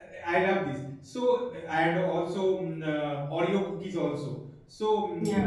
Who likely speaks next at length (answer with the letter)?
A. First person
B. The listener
A